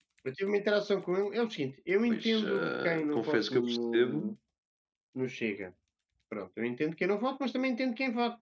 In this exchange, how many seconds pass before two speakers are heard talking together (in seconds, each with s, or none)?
2.1 s